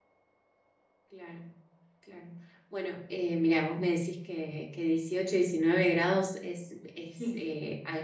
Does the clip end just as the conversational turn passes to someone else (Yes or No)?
No